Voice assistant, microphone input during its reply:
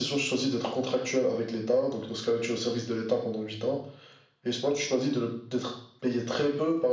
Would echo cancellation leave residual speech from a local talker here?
No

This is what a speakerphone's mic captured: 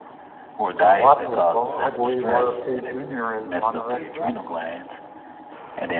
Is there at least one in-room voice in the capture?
No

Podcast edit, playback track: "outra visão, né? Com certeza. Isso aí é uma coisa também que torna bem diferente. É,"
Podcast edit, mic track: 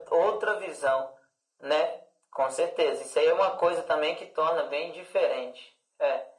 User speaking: No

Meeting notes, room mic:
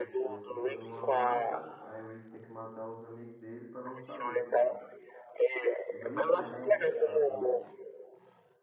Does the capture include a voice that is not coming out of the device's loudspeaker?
Yes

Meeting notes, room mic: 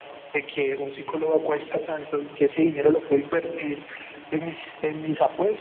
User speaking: No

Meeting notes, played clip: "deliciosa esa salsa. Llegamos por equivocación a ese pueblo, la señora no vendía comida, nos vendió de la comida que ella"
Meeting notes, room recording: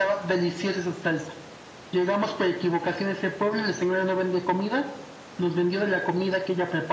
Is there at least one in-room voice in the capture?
No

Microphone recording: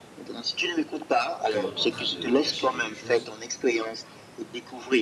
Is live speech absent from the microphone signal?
No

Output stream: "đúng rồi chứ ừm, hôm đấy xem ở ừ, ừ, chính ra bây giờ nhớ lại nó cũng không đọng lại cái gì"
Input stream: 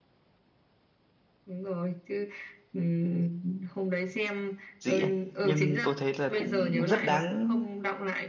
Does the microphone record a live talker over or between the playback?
Yes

